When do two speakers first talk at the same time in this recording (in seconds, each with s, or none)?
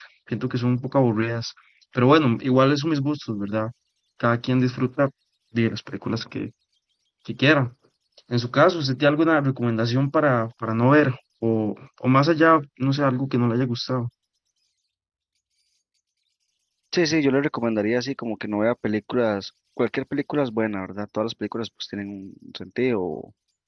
none